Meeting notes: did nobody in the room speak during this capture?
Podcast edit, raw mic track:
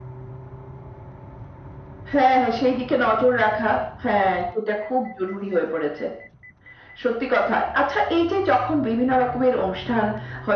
Yes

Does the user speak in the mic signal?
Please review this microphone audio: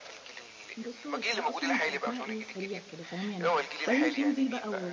Yes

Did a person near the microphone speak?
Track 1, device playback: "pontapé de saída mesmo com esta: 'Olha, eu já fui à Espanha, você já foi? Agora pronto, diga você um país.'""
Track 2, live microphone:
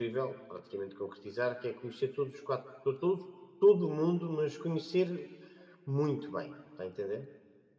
Yes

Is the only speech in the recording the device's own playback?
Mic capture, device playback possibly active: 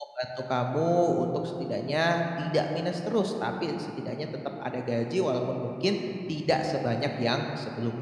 No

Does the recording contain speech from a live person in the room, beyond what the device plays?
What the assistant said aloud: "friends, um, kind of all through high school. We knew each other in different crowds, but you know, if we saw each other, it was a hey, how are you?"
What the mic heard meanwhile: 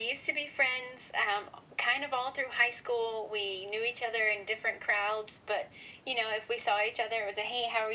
No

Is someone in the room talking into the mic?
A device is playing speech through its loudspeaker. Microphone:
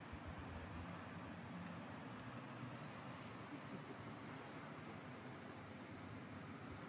No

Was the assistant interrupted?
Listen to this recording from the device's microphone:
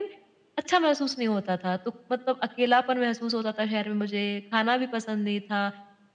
No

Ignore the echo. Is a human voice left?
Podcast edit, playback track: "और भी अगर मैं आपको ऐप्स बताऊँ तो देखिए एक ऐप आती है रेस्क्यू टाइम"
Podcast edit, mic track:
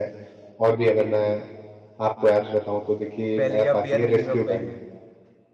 Yes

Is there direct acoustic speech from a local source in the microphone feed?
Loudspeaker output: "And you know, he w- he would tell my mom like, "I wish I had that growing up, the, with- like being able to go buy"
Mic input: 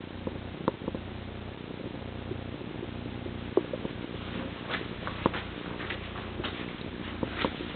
No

